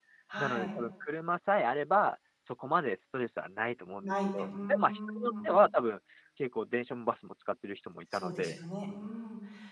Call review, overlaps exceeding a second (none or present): present